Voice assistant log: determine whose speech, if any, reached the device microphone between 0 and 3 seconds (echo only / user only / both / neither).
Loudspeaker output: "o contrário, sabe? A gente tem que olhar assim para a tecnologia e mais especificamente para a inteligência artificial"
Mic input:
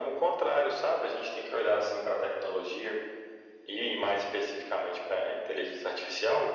echo only